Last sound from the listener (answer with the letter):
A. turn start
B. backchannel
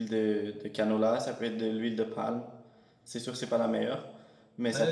A